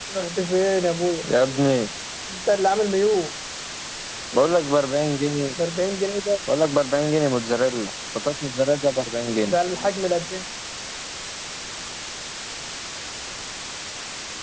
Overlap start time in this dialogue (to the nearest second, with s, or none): none